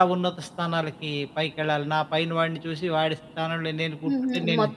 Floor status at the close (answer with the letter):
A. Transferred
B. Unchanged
A